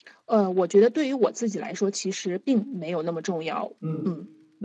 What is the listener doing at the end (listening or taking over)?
taking over